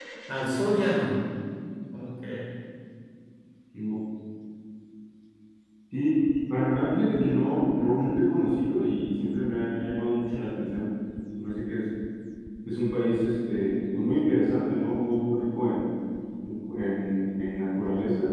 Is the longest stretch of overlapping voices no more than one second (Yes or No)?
Yes